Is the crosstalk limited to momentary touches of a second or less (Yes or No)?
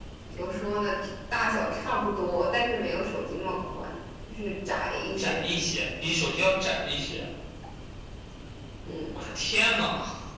Yes